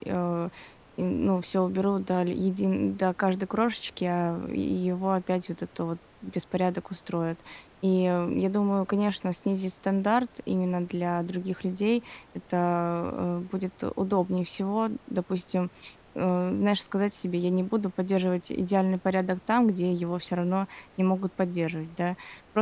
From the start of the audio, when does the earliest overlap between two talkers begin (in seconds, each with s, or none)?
none